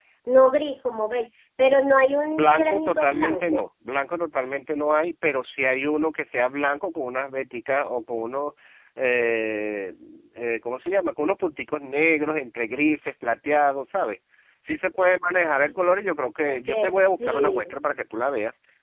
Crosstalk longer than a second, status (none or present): present